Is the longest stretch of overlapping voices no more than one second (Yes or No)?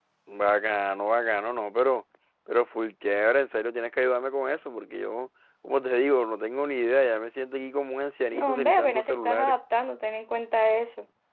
No